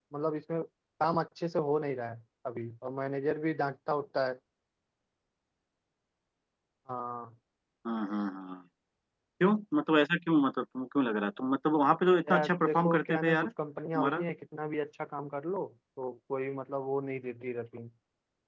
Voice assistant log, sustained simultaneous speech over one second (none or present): present